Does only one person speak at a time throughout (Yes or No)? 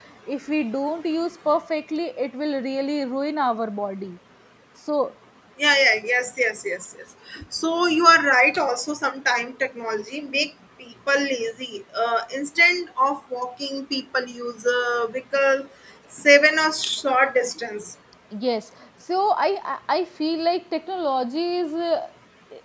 Yes